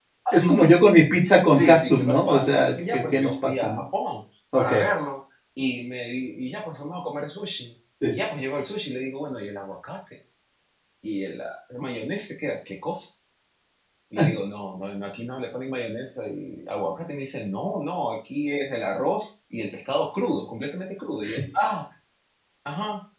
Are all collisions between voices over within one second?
No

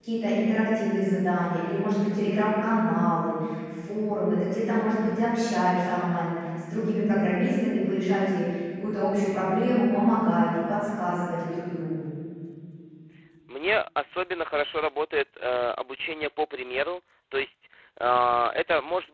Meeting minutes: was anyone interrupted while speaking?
No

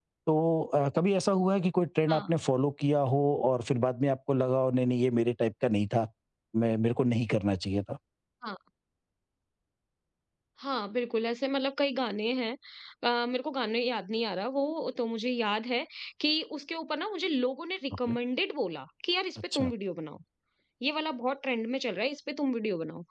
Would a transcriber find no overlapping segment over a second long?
Yes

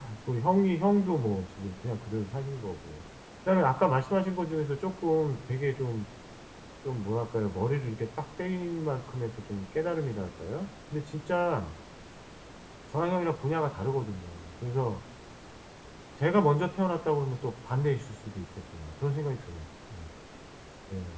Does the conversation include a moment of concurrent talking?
No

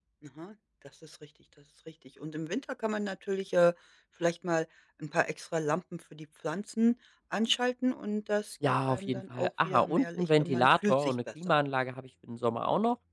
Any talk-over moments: Yes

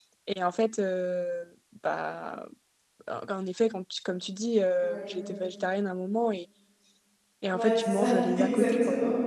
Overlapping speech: Yes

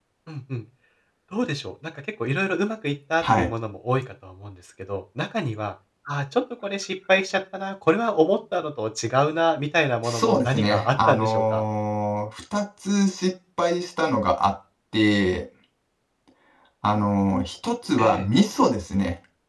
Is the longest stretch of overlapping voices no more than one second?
No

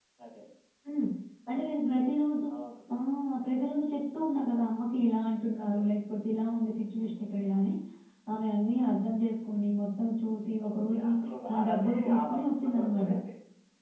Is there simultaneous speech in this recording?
Yes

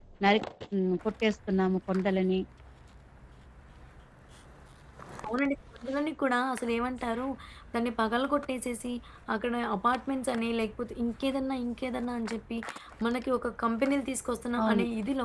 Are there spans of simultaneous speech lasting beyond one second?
No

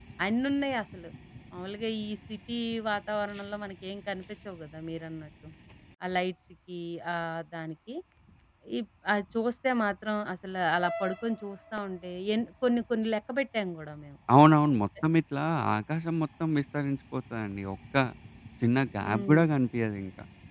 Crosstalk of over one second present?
No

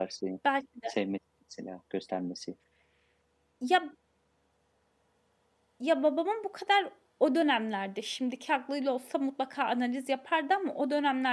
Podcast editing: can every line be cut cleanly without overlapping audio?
Yes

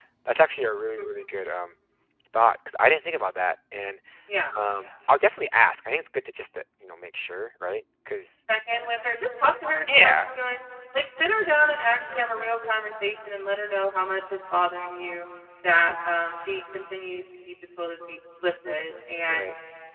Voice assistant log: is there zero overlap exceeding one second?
Yes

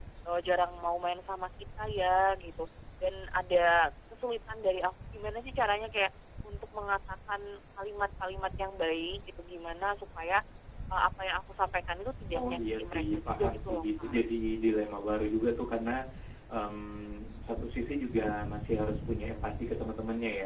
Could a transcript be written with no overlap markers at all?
No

